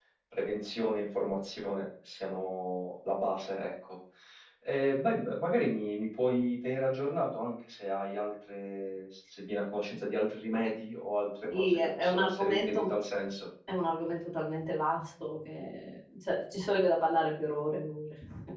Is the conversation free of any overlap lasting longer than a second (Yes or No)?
No